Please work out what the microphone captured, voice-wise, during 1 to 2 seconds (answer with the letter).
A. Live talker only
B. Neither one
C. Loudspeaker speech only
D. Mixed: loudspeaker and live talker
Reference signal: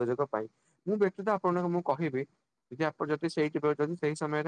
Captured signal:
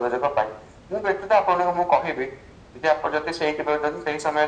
C